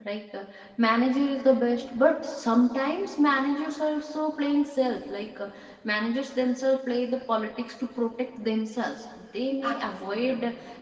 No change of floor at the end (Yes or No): Yes